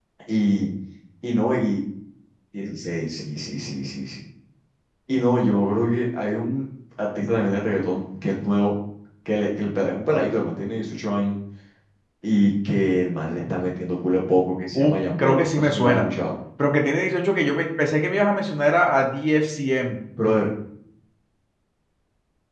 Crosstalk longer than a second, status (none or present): present